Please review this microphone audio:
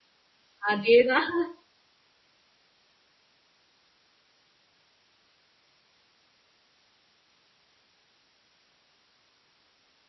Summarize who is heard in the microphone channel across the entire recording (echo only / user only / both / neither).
user only